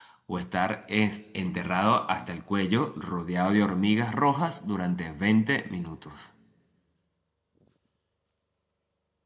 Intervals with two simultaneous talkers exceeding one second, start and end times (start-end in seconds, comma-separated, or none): none